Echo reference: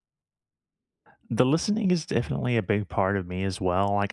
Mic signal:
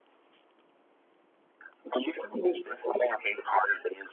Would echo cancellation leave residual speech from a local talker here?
No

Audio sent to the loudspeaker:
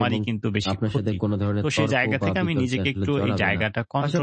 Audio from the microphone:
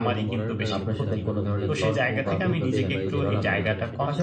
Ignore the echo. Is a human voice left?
Yes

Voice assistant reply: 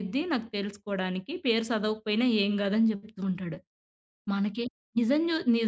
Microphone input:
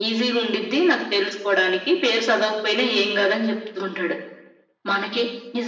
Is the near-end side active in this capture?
No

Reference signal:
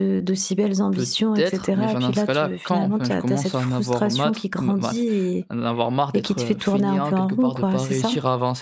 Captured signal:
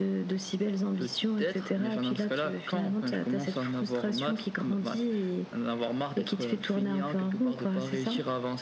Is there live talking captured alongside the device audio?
No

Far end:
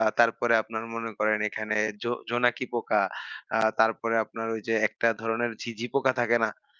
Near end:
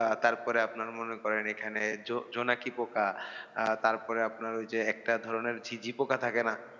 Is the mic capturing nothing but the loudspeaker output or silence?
Yes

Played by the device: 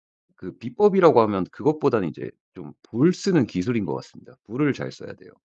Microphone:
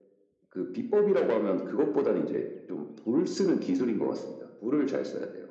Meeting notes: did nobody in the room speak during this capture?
Yes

